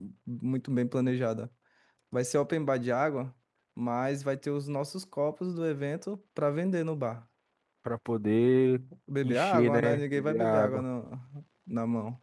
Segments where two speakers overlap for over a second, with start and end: 9.2-10.8

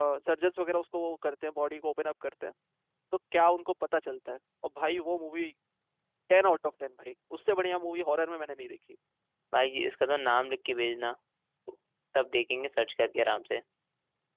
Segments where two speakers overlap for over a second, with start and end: none

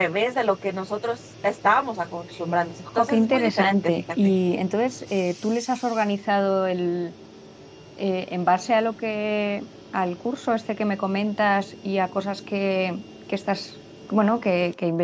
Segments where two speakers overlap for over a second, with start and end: 3.0-4.3

